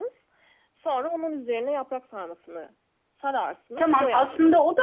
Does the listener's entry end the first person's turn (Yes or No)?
Yes